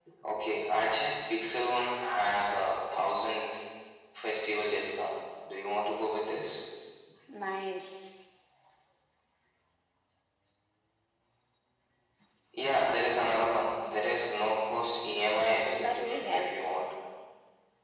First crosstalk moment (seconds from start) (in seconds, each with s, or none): 15.4 s